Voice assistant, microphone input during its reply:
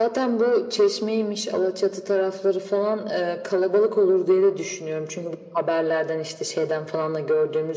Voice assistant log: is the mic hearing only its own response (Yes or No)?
Yes